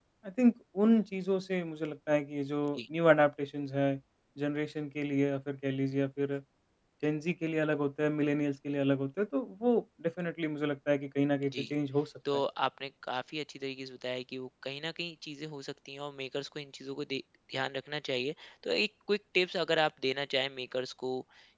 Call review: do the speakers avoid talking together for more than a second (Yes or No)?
Yes